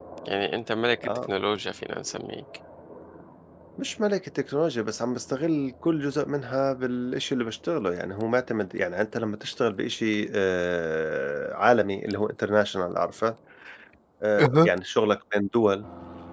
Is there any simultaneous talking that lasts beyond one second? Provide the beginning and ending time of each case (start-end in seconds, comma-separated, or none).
none